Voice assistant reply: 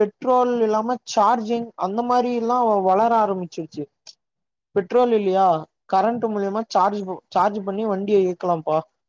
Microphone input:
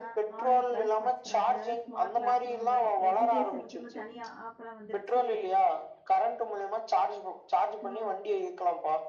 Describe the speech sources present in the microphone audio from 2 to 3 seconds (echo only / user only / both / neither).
both